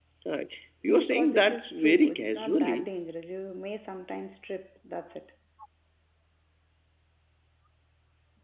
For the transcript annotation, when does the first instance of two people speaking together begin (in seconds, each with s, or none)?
1.0 s